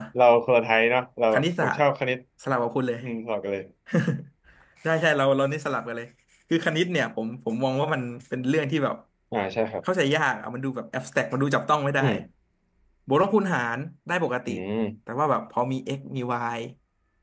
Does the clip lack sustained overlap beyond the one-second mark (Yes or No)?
Yes